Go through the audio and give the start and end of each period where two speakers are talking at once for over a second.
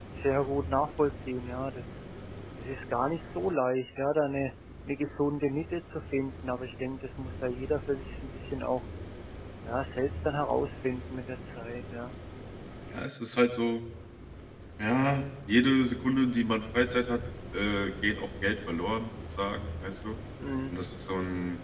none

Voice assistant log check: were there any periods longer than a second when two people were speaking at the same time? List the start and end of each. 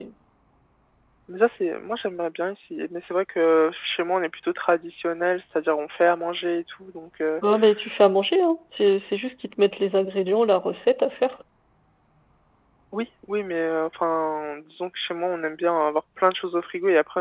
none

